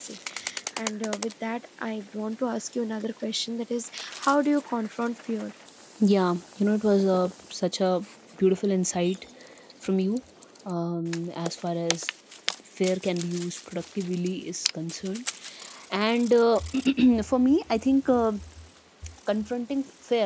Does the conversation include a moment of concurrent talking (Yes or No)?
No